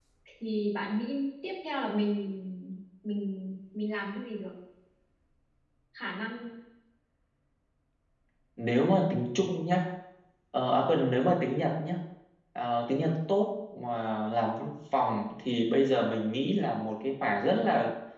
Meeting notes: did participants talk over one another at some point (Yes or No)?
No